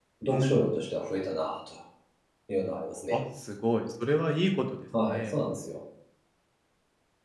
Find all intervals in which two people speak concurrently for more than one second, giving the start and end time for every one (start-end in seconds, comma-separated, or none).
none